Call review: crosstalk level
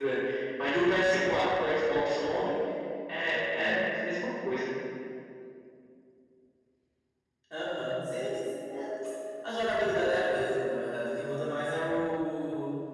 none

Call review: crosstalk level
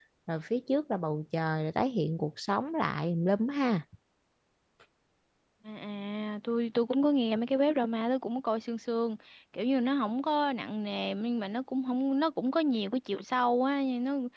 none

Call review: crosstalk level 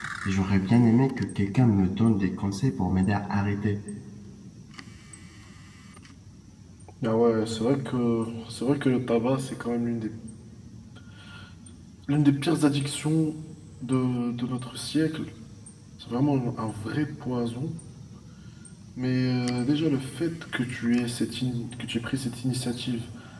none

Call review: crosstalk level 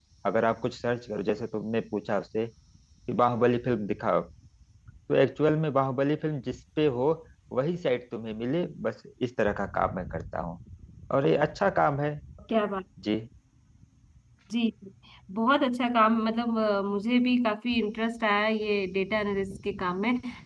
none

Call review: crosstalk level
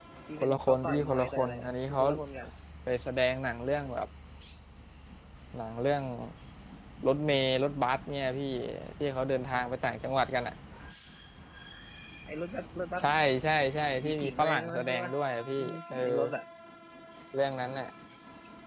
present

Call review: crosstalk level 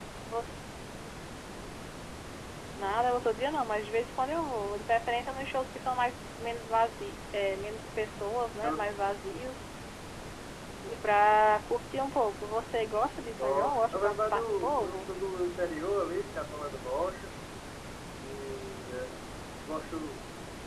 present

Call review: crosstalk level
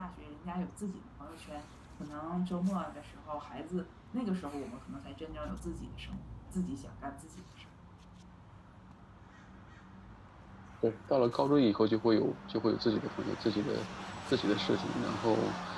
none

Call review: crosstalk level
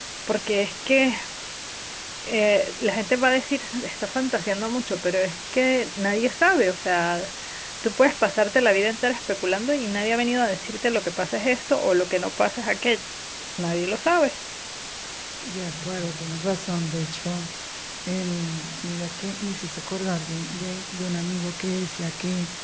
none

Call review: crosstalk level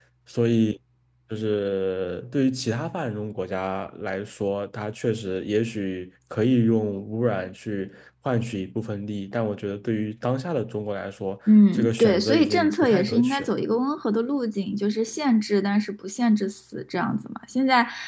present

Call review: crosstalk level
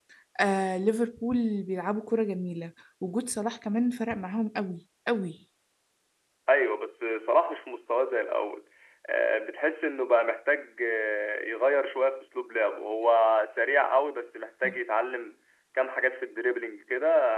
none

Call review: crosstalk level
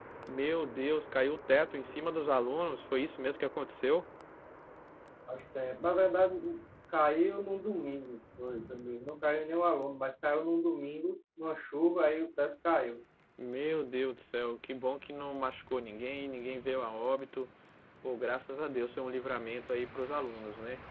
none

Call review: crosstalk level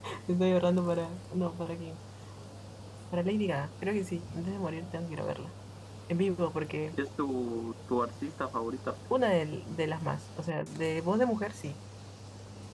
none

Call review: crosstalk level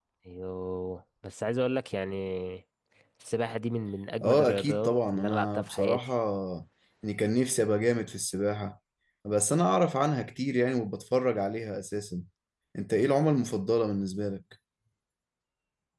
present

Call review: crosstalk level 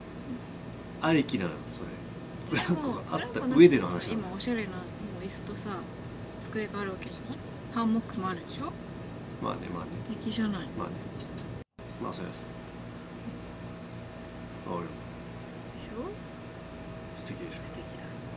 present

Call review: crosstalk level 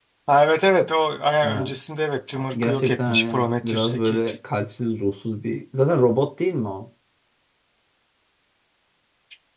present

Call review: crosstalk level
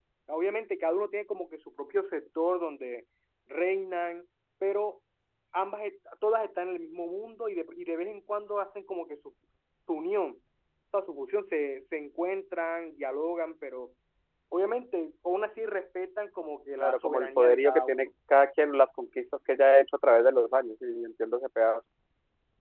present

